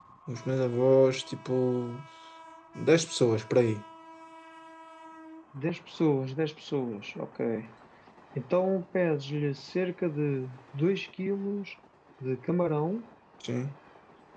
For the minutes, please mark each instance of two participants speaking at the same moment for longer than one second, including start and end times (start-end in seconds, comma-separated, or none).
none